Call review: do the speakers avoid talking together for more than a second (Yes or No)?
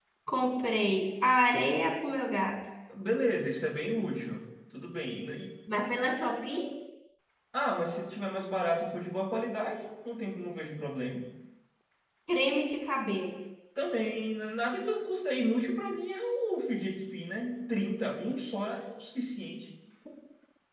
Yes